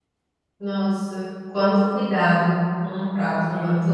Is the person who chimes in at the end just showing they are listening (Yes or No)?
Yes